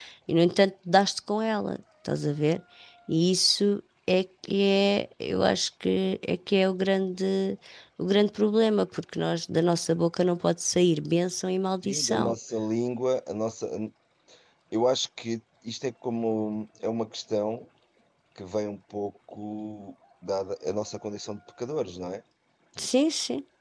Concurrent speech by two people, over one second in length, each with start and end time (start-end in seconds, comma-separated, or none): none